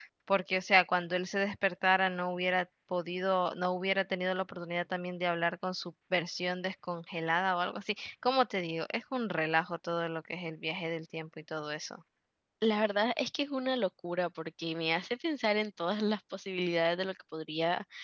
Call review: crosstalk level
none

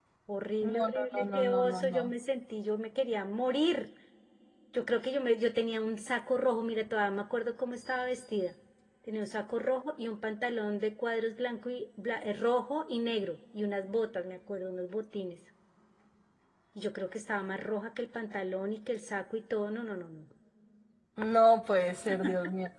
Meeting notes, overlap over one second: present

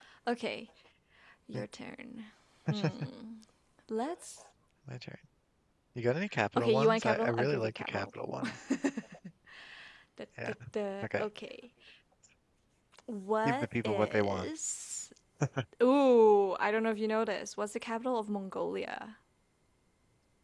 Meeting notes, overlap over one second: present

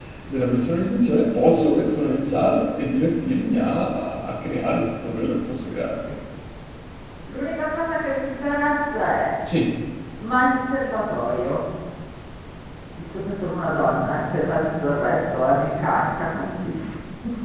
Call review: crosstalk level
none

